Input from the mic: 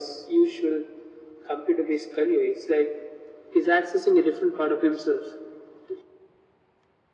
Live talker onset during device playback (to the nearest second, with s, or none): none